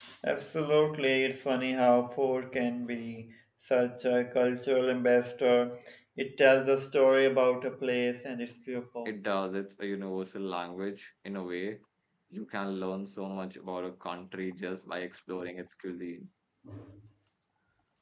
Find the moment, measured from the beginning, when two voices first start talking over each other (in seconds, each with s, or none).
none